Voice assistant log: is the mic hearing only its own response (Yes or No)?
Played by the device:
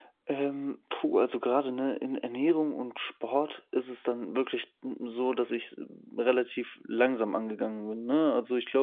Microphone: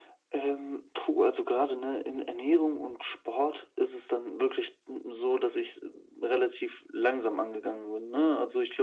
Yes